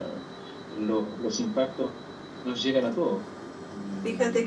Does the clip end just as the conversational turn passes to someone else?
Yes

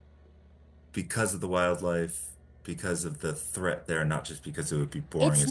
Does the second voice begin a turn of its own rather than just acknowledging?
Yes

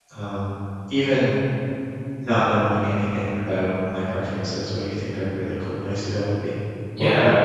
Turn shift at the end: Yes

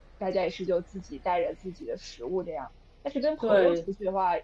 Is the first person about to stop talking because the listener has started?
No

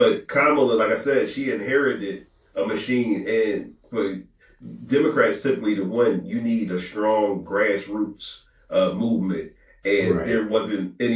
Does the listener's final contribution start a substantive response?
No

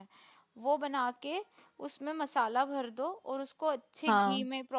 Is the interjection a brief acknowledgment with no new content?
Yes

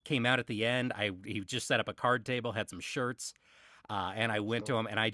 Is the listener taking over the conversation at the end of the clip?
No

